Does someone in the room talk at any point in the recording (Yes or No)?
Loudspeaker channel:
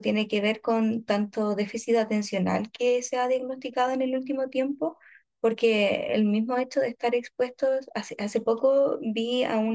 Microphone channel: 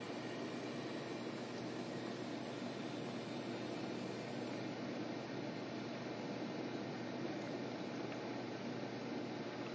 No